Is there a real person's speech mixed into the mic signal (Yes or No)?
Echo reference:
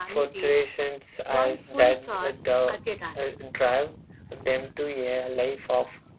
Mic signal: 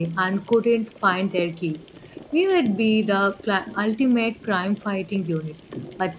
Yes